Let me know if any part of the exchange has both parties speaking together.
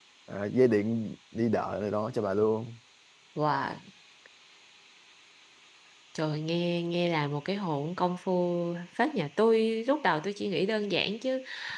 No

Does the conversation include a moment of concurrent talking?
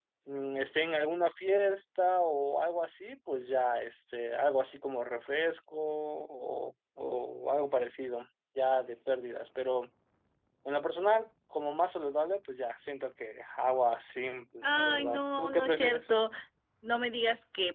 Yes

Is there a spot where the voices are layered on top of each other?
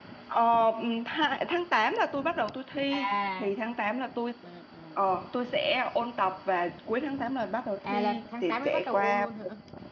Yes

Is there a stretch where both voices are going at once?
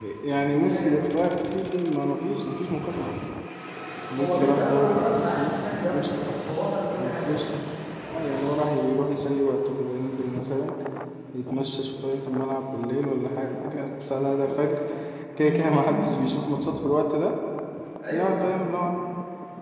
Yes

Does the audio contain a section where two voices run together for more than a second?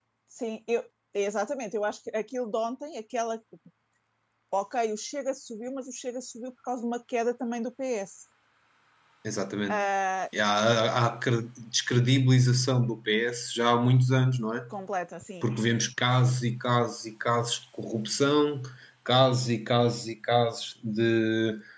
No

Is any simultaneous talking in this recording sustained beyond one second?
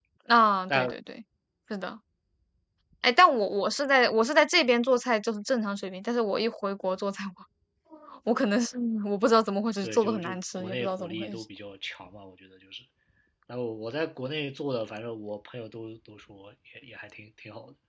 Yes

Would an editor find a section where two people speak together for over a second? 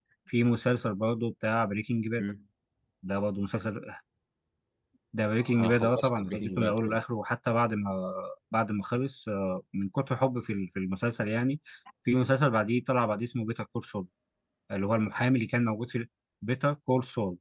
Yes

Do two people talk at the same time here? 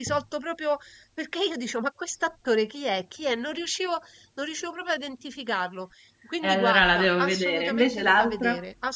Yes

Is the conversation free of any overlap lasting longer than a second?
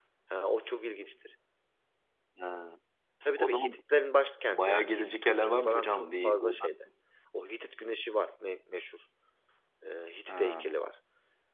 No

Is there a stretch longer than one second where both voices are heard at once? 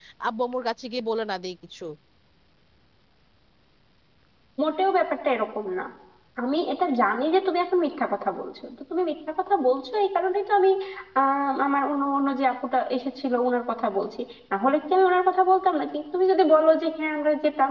No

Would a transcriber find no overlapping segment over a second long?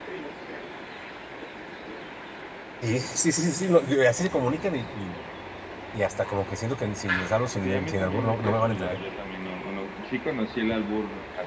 No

